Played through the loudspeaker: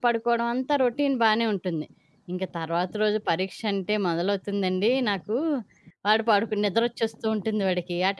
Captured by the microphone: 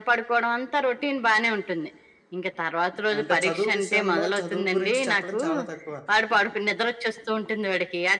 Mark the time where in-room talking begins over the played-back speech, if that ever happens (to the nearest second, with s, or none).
3 s